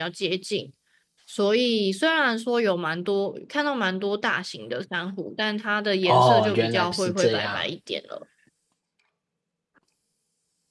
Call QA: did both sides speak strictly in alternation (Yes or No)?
No